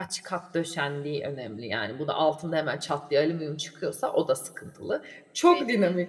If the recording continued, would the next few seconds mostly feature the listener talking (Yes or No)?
No